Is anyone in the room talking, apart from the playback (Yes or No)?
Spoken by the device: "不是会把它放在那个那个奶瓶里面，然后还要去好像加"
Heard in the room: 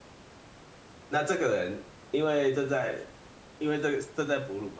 Yes